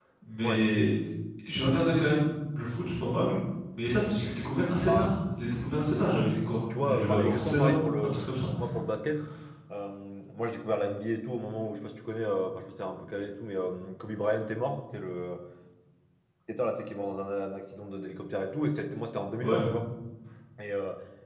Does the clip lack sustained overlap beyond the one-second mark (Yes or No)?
No